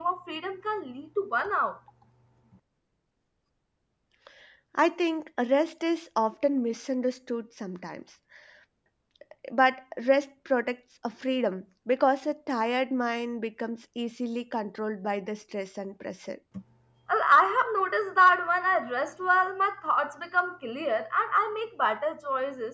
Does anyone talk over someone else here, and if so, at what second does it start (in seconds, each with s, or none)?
none